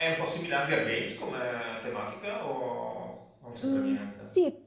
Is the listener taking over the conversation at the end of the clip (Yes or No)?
Yes